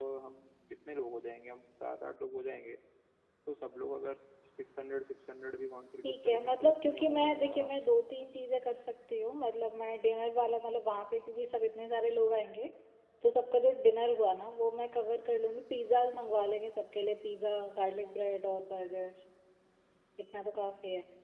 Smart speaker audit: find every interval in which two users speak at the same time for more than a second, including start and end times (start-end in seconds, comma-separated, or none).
6.0-7.8